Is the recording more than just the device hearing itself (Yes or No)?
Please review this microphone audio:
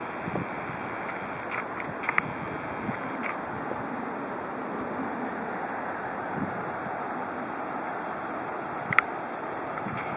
No